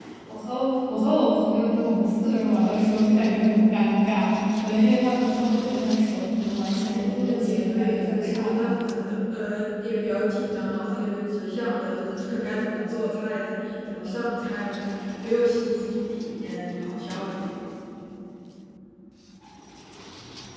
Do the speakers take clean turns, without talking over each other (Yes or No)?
No